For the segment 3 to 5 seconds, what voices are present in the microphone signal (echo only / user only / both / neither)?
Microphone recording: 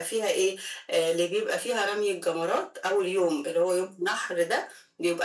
echo only